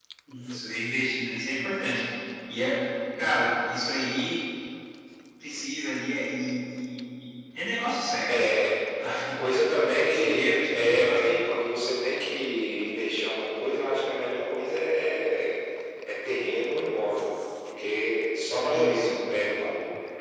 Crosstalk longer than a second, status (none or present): present